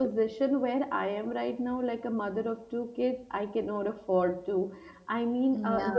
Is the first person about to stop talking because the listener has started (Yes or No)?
No